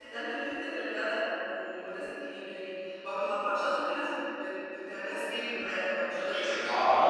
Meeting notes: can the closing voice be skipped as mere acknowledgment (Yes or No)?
No